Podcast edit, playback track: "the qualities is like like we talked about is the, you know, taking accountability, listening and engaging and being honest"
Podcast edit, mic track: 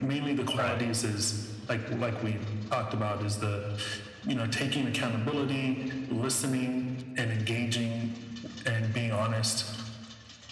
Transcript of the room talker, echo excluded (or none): Right.